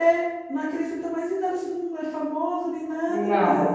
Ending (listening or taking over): listening